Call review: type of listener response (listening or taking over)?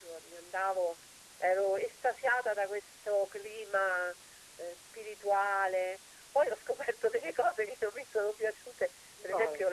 listening